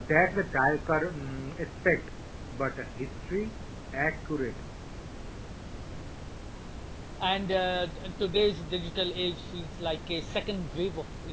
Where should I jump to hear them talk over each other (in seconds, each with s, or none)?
none